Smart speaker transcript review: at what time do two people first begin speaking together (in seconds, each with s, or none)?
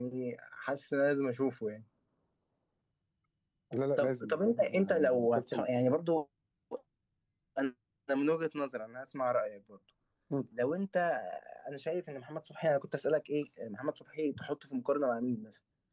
4.0 s